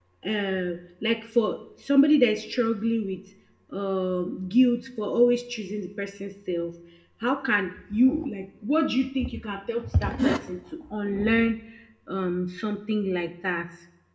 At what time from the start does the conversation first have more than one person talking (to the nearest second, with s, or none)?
none